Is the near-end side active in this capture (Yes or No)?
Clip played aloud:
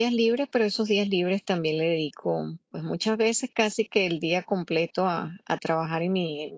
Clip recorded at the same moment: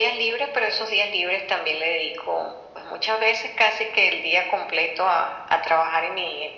No